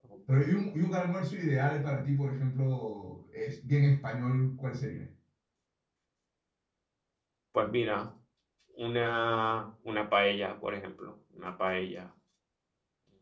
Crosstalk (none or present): none